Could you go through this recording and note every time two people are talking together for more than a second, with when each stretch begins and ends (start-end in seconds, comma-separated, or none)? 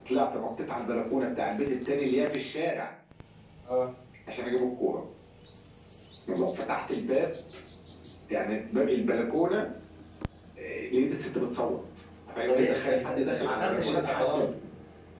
12.3-14.4